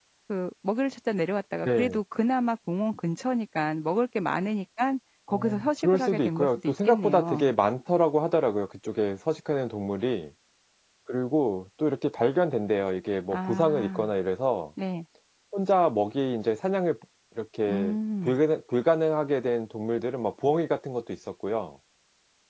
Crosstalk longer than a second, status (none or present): present